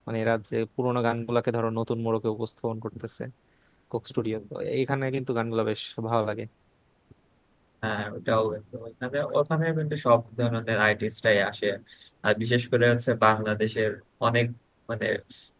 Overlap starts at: none

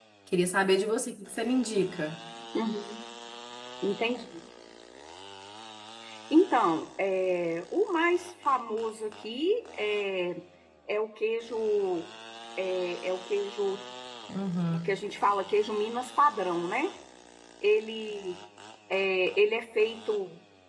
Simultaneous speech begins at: none

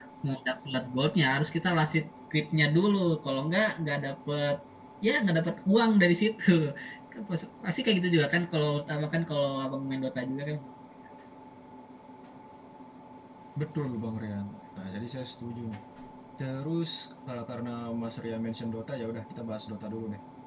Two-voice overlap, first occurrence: none

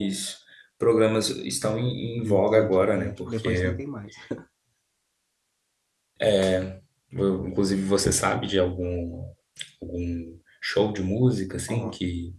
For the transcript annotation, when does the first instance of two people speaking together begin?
2 s

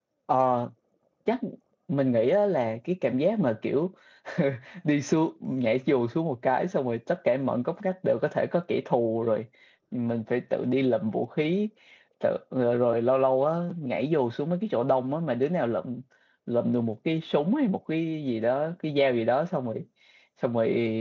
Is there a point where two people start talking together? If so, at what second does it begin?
none

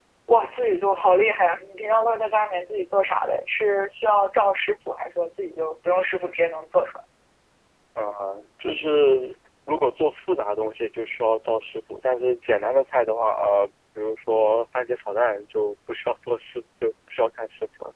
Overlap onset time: none

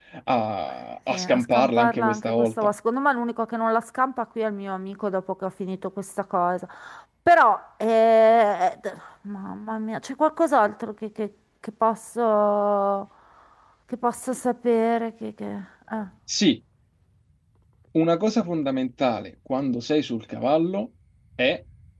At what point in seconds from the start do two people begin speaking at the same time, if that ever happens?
1 s

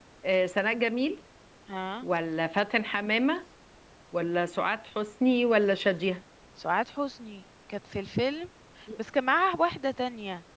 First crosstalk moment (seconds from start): none

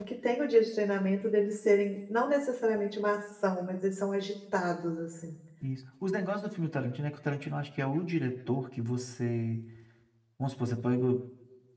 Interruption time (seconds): none

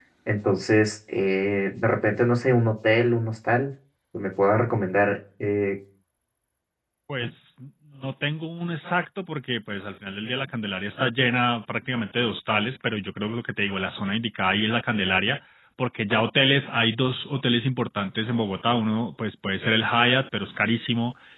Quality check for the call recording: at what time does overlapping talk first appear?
none

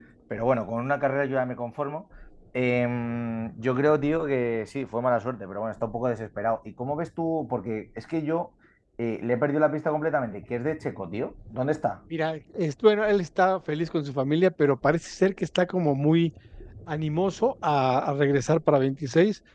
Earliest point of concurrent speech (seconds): none

